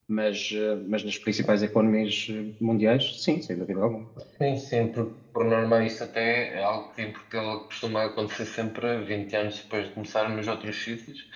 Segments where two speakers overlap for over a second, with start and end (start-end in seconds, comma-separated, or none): none